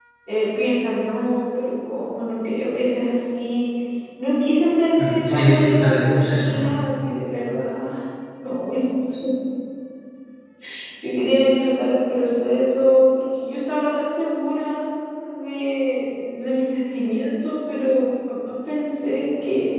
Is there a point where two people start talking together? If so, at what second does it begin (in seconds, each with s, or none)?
5.0 s